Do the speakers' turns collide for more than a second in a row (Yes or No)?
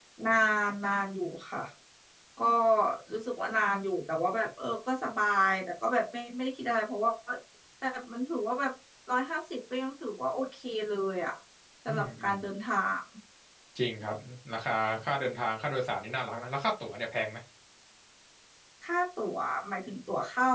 No